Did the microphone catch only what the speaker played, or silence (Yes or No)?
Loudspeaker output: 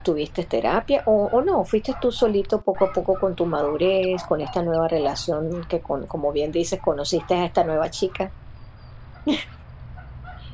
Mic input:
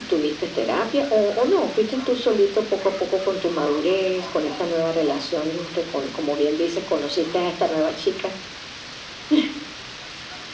Yes